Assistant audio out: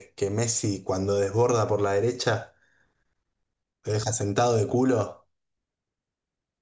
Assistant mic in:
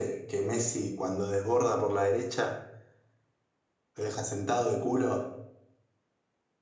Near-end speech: none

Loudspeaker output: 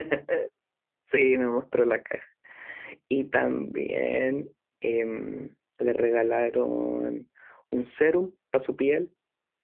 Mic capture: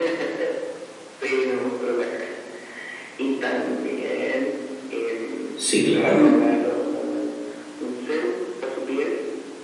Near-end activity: present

